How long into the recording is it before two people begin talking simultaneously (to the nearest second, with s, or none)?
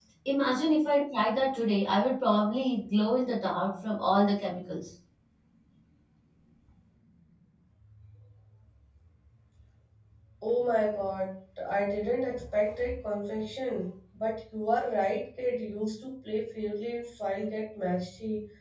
none